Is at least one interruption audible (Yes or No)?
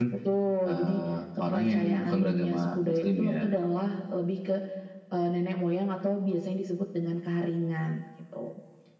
Yes